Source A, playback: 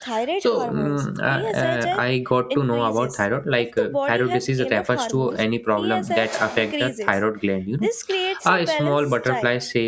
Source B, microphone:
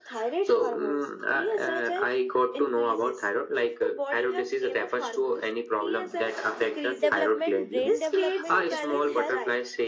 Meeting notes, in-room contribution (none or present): present